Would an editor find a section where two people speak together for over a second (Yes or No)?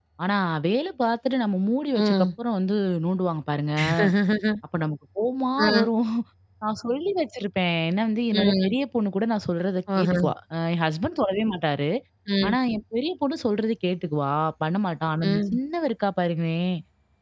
No